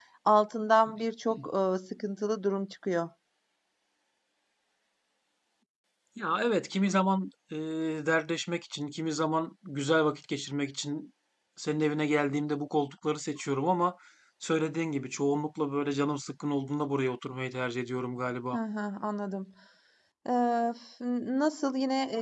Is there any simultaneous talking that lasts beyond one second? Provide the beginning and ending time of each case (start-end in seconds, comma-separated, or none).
none